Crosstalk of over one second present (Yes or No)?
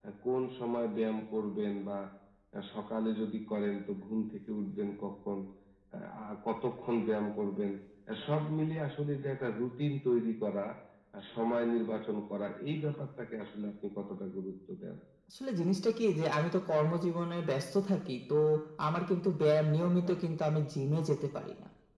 No